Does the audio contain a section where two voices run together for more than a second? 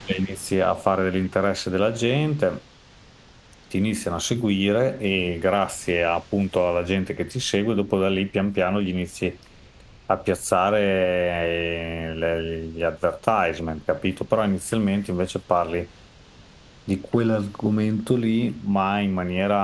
No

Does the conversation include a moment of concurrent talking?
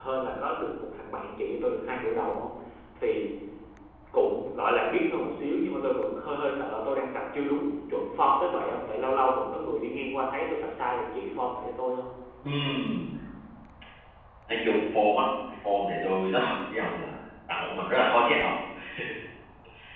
No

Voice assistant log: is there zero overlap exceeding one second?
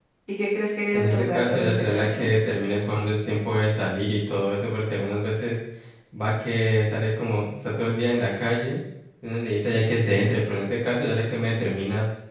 No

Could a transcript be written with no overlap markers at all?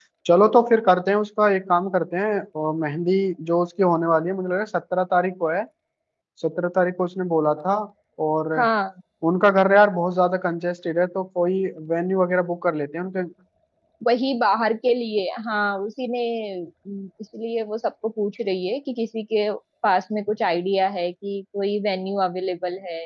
Yes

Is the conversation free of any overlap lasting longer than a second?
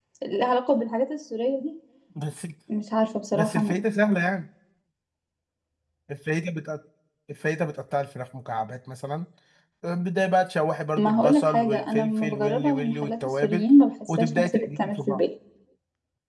No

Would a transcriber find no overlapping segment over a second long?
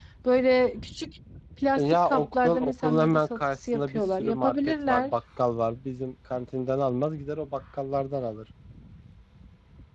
No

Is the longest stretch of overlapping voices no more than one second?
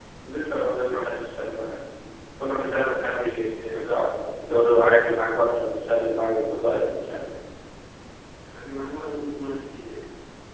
Yes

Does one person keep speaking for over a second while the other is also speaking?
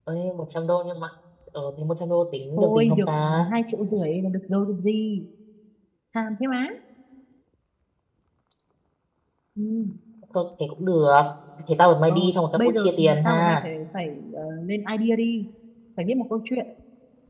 Yes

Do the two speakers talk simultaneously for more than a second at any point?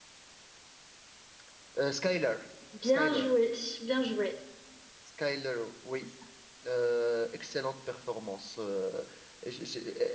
No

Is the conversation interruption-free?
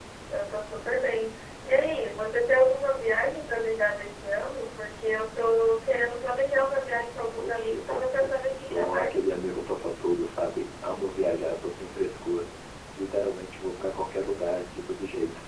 No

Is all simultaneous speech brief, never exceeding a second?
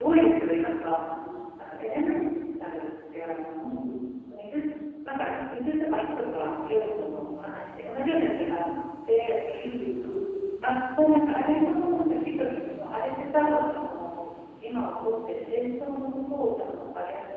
Yes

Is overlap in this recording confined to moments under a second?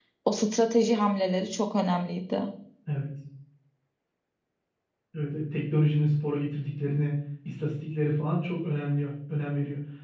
Yes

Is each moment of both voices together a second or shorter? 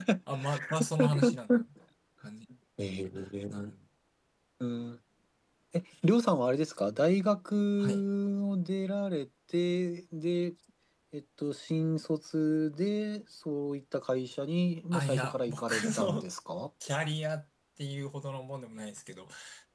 No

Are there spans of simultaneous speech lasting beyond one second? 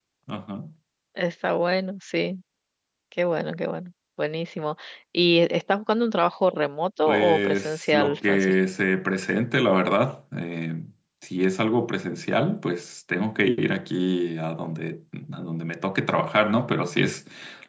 Yes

